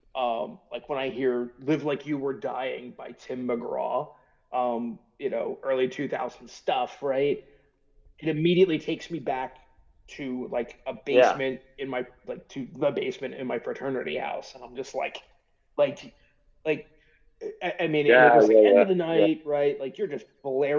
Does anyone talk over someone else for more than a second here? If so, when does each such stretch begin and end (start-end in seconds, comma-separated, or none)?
18.1-19.3